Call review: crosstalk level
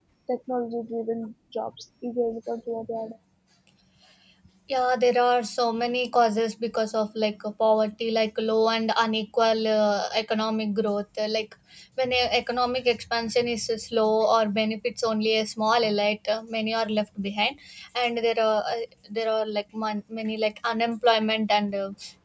none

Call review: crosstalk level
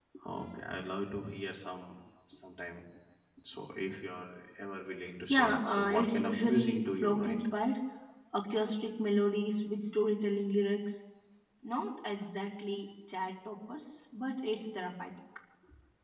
present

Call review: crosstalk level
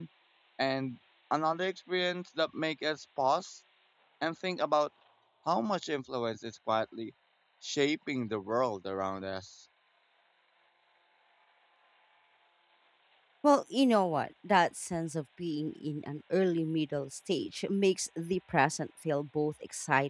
none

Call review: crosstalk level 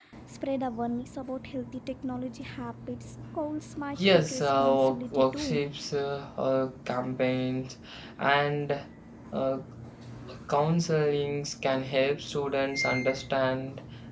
present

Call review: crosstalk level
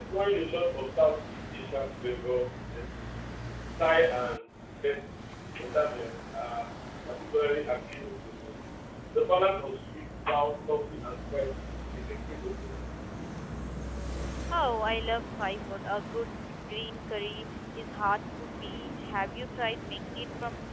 none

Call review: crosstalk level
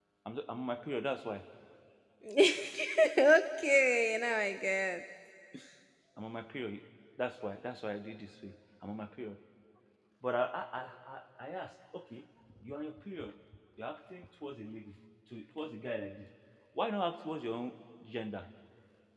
none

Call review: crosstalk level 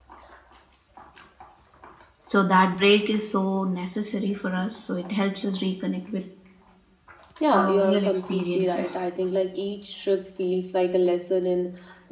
present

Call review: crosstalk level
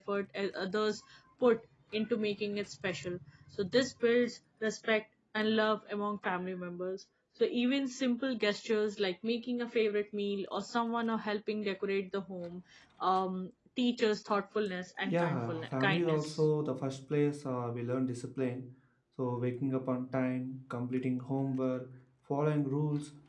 present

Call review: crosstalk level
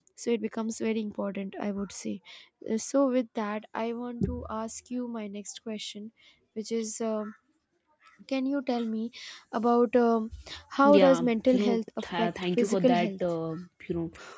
present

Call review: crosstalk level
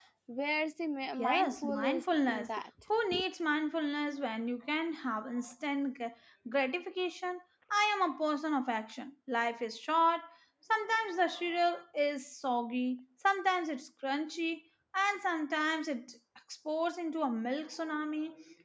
present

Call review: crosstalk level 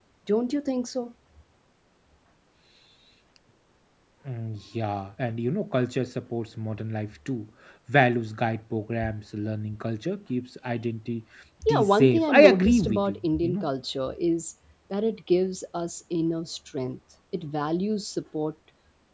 present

